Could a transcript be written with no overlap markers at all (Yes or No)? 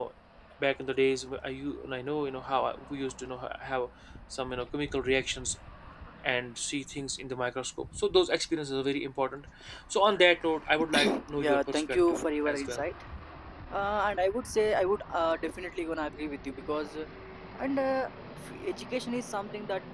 No